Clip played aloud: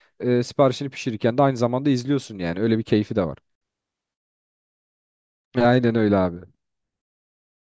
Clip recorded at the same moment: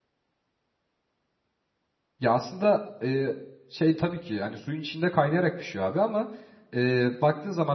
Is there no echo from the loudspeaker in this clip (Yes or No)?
Yes